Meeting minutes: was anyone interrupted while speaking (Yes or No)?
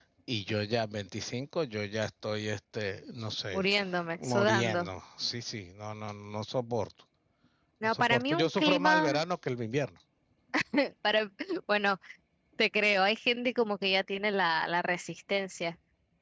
Yes